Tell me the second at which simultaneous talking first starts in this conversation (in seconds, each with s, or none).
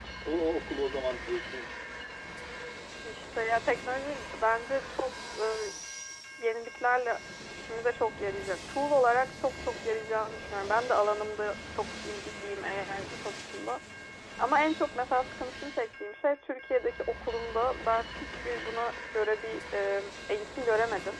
none